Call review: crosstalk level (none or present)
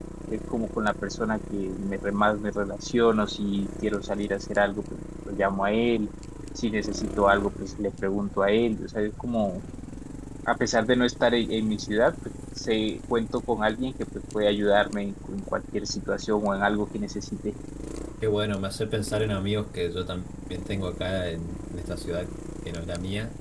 none